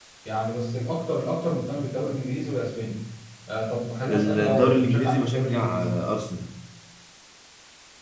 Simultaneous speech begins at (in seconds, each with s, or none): 4.1 s